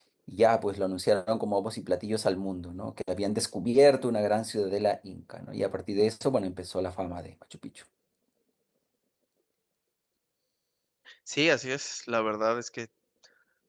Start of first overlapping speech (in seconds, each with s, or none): none